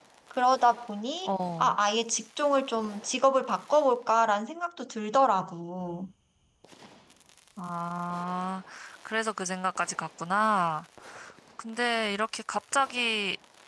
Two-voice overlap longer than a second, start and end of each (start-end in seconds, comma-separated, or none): none